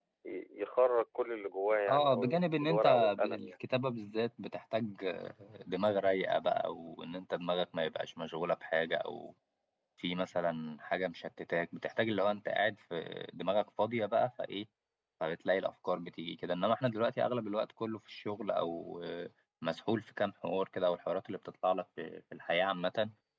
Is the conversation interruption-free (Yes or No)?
No